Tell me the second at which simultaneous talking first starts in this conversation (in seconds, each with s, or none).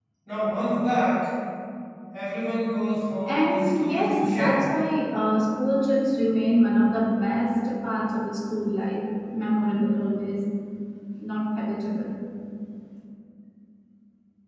3.2 s